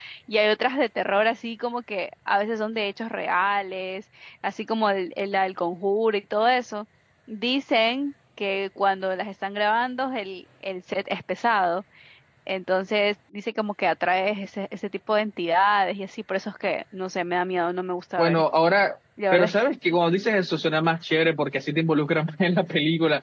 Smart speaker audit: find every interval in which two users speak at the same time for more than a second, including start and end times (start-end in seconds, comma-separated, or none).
none